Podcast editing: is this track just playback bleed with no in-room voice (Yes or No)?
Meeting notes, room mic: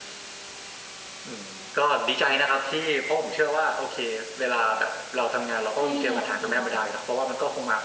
No